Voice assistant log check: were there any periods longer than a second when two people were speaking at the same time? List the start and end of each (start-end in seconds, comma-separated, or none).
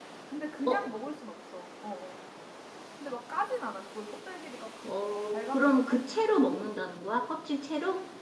5.1-6.3